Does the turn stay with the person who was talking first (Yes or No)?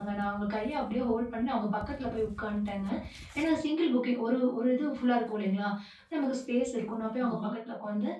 Yes